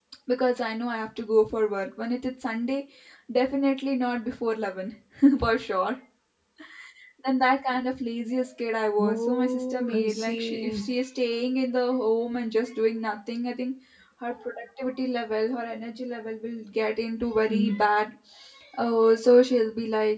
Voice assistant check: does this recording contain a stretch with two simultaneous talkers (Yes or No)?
Yes